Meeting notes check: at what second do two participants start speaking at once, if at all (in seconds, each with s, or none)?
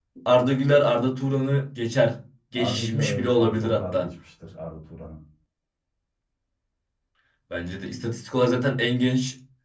2.6 s